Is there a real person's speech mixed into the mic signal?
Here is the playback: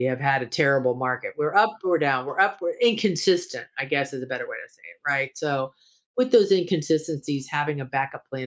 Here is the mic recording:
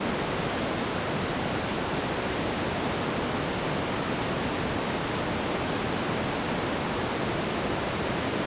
No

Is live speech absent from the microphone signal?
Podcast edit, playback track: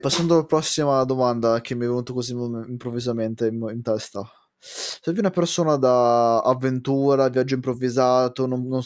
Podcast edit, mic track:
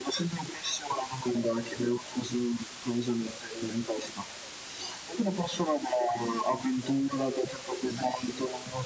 Yes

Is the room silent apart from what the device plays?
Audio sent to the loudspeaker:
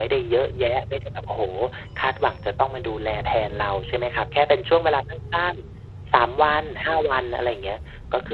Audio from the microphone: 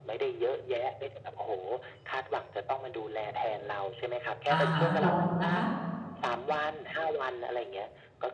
No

